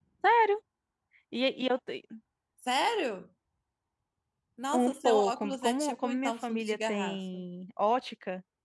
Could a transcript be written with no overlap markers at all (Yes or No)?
No